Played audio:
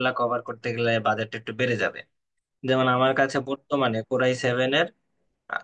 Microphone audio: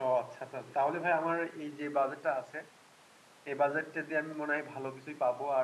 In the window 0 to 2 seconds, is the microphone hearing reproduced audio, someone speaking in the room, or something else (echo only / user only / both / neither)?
user only